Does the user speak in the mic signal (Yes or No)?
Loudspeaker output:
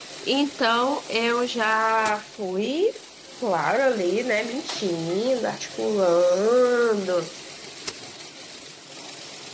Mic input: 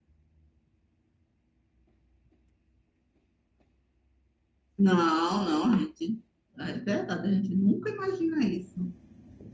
Yes